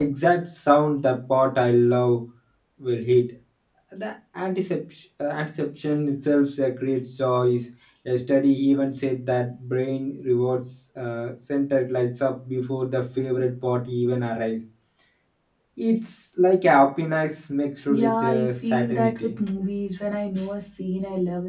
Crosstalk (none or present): present